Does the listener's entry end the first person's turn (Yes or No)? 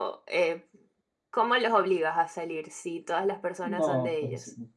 Yes